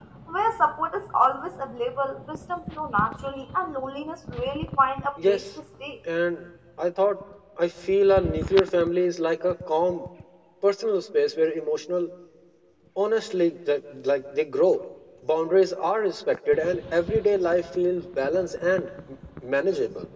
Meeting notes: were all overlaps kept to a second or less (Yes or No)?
Yes